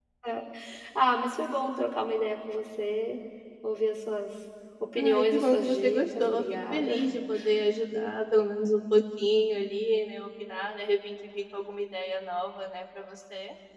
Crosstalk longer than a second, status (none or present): present